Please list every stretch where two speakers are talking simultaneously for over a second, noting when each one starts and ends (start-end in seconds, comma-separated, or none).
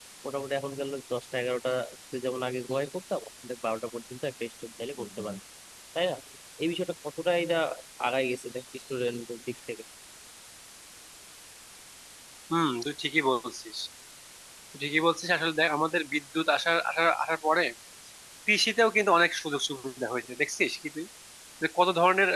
none